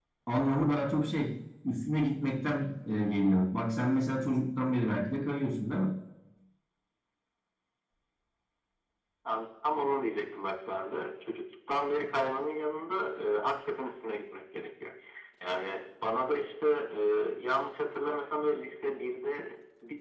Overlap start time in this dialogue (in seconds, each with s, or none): none